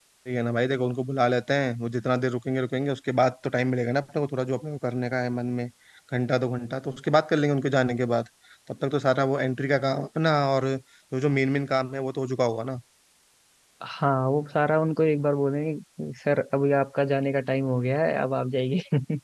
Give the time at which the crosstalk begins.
none

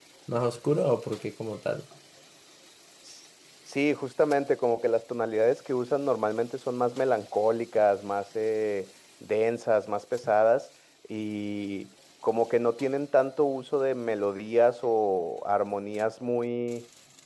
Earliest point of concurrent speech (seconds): none

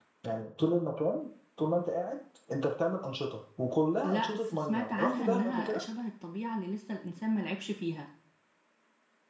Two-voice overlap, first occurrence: 4 s

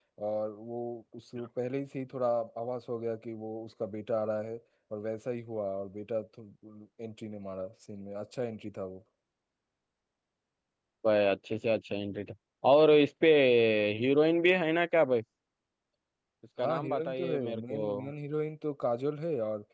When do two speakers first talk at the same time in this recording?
17 s

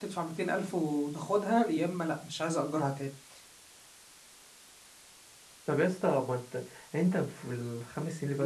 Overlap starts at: none

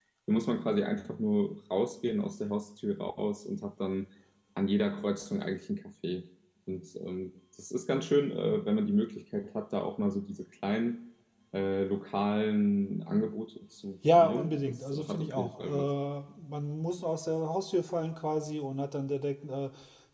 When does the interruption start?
14 s

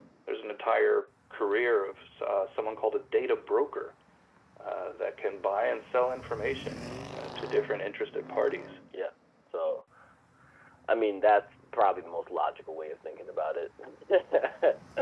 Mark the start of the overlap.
none

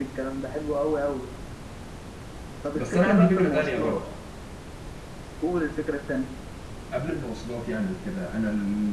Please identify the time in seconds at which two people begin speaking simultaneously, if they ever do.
3 s

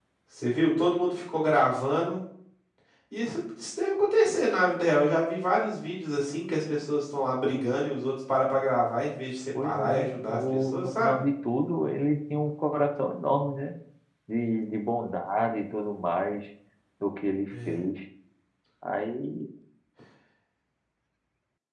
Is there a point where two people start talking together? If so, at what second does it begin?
10 s

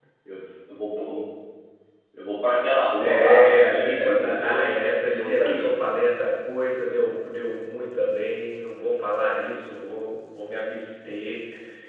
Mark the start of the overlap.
3 s

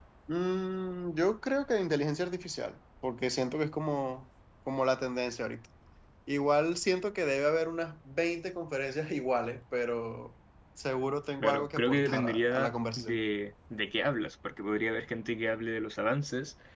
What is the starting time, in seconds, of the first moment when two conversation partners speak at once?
11 s

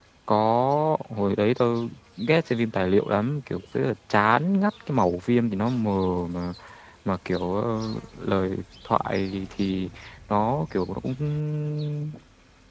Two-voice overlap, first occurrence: none

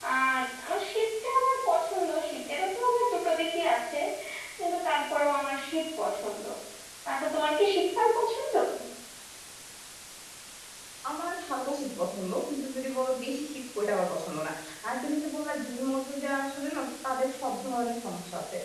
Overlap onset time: none

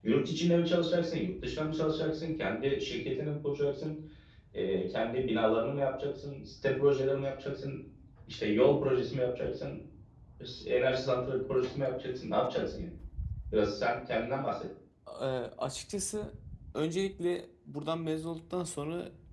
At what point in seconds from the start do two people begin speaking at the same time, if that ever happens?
none

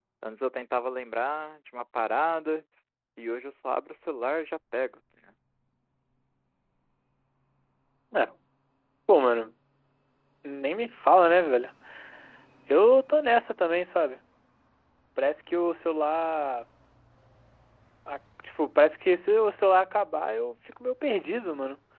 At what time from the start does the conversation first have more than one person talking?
none

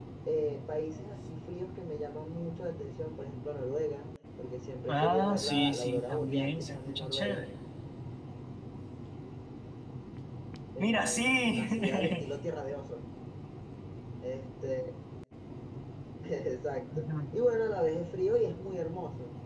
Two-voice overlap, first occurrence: 5 s

